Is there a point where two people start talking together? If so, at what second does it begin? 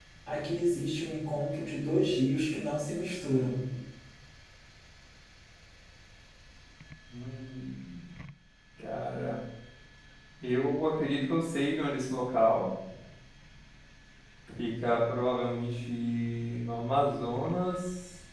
none

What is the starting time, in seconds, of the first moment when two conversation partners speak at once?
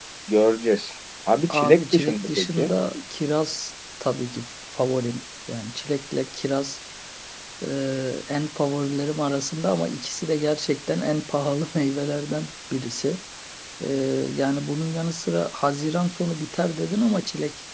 2 s

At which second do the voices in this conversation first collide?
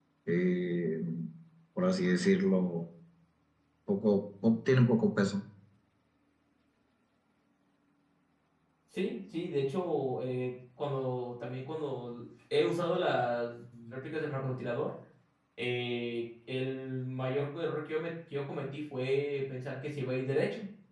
none

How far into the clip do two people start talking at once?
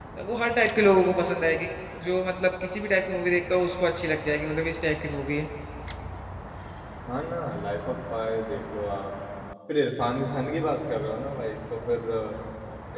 none

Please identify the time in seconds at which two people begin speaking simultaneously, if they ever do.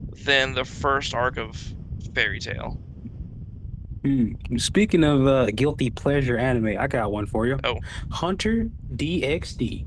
none

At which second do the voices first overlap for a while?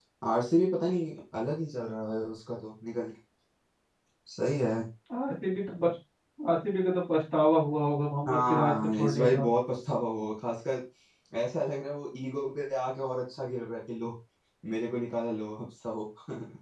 8 s

